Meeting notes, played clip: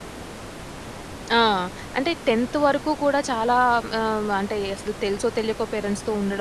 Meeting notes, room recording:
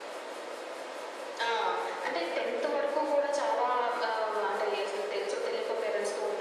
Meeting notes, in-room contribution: none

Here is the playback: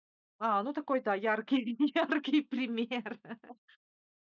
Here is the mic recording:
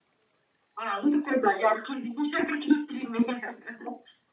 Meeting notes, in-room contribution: none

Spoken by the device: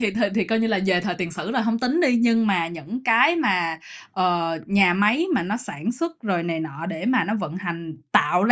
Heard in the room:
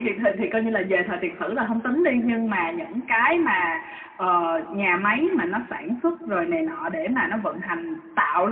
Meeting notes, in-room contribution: none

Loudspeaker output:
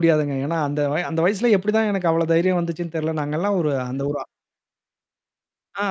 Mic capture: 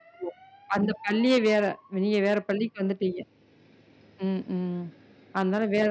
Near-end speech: present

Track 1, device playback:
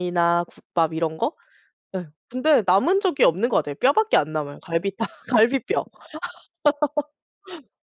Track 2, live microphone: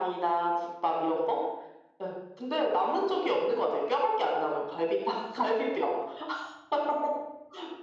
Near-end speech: none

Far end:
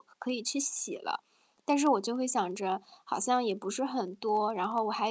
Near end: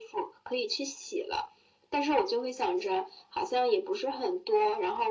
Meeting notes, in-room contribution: none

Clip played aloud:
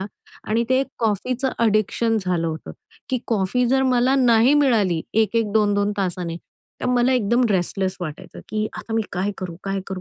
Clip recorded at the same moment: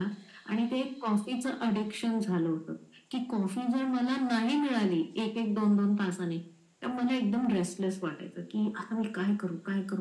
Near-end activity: none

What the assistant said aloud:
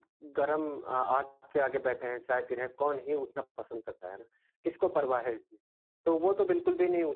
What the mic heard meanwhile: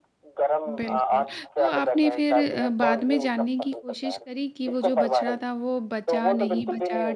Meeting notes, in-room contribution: present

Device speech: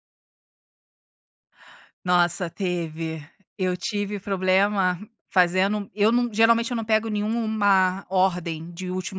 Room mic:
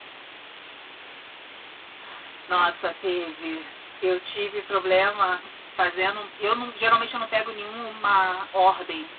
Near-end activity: none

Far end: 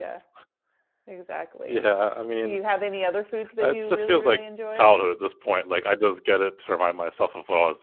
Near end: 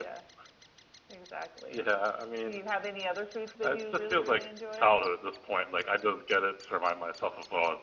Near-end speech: none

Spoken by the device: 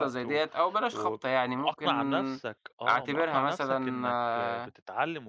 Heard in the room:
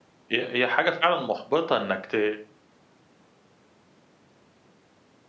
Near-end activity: present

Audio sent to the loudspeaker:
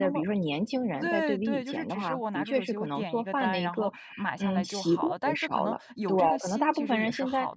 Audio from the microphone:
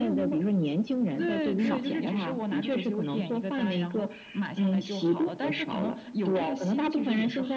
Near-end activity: present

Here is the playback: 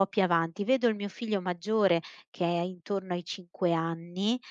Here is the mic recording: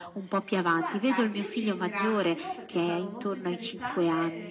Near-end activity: present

